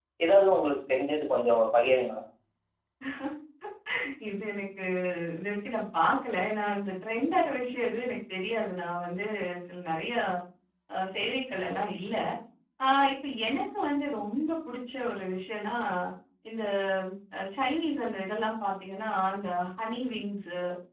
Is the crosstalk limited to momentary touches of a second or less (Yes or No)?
Yes